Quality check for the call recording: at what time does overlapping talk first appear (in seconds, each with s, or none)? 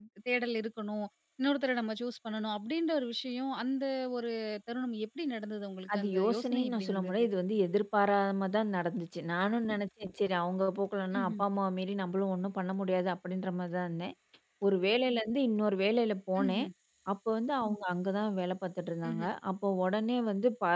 5.9 s